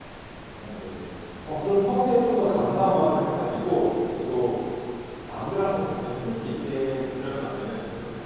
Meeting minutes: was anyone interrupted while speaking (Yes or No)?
No